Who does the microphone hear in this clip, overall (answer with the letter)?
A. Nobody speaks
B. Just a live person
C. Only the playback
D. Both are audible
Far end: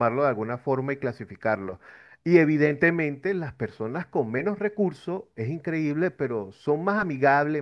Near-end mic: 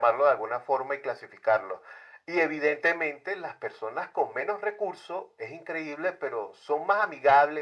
C